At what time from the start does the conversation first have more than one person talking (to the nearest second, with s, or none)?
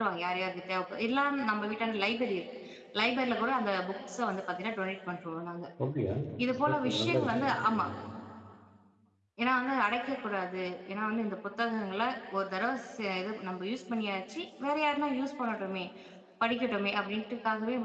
7 s